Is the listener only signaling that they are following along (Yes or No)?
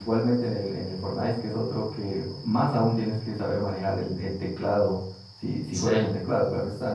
Yes